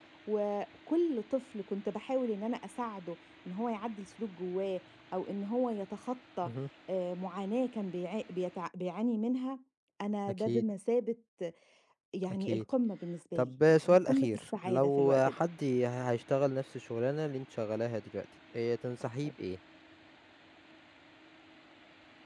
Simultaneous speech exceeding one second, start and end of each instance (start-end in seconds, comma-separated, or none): 13.4-15.4